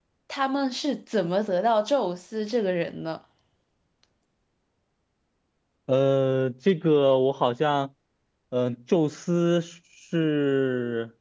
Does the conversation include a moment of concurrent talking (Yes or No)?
No